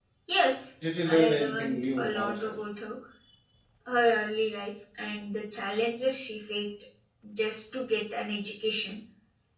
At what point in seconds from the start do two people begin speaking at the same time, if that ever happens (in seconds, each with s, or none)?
1.1 s